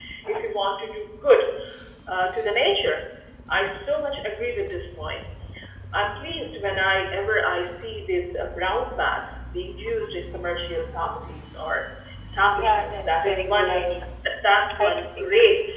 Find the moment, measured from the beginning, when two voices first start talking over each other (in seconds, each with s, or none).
12.6 s